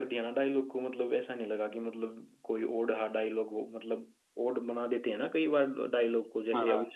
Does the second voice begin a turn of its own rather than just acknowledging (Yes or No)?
Yes